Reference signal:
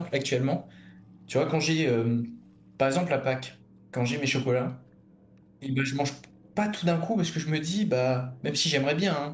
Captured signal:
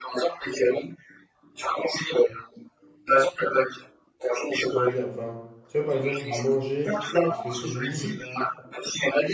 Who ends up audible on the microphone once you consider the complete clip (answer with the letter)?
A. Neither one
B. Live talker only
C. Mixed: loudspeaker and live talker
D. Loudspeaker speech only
C